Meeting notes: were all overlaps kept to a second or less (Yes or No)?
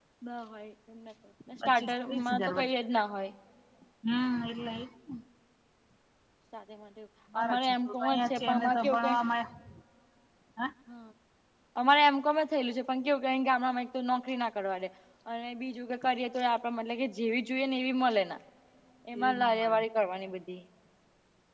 No